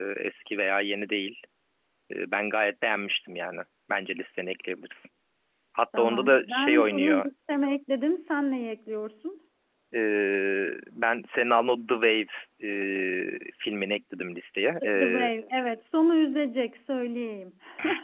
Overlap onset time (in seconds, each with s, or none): 6.0 s